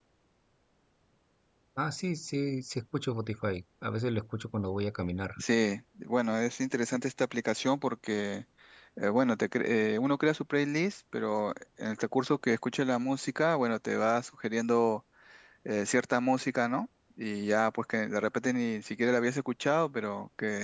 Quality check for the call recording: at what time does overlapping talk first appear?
none

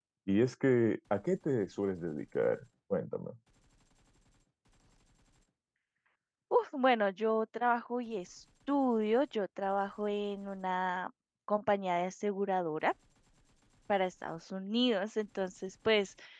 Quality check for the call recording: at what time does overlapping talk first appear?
none

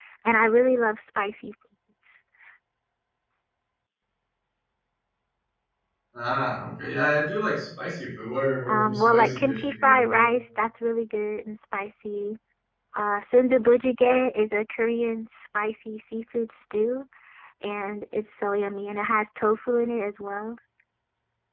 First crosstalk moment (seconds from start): 8.7 s

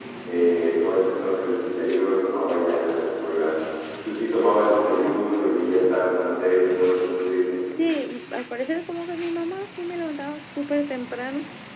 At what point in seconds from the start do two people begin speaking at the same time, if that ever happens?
none

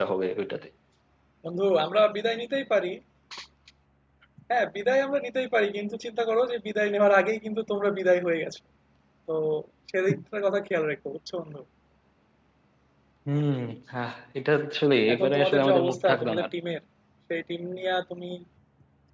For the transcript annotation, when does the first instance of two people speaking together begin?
15.1 s

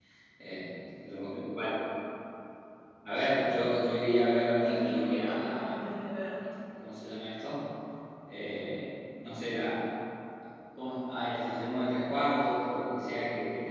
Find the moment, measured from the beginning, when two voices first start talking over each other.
4.6 s

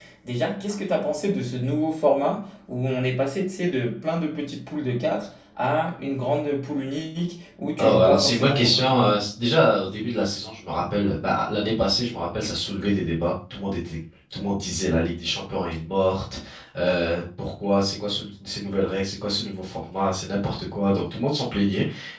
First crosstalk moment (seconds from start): 7.8 s

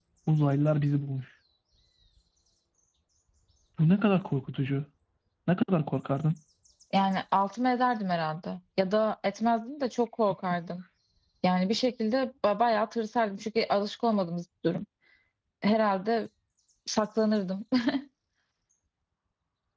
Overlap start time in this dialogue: none

